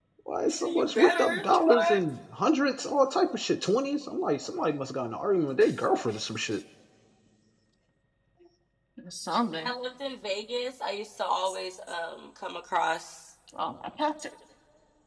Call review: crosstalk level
present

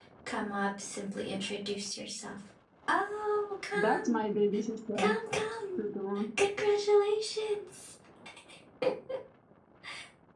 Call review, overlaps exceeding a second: none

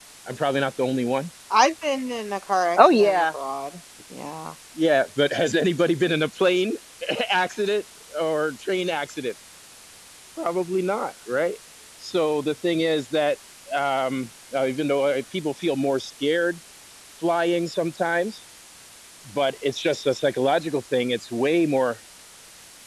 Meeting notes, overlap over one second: none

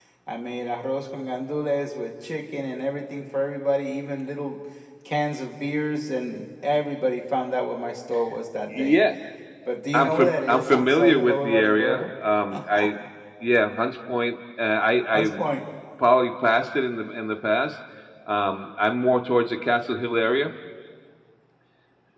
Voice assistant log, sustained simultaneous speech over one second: present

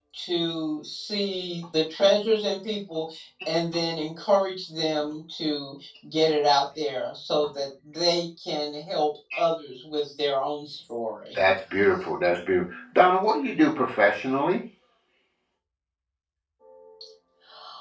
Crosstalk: none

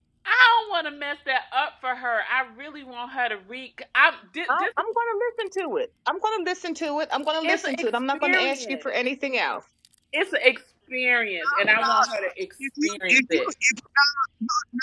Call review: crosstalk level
present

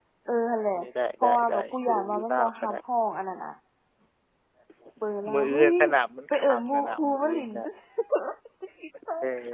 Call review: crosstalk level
present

